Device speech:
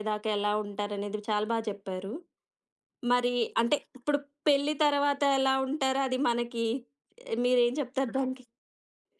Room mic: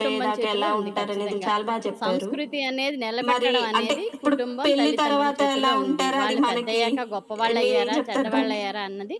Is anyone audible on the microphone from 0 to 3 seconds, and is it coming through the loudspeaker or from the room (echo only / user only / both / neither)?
both